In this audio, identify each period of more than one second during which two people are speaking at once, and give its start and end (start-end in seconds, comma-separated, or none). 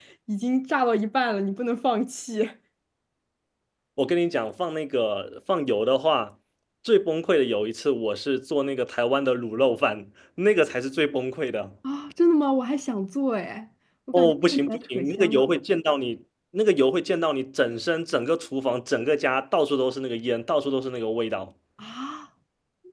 14.1-15.5